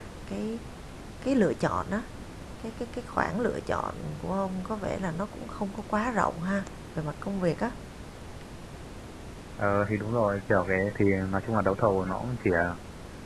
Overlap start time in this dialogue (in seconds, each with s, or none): none